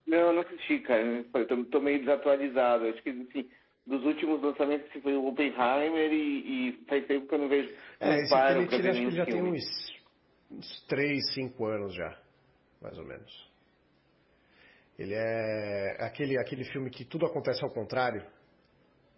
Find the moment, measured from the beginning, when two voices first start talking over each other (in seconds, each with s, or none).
8.0 s